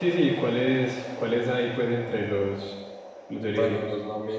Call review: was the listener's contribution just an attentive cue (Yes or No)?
No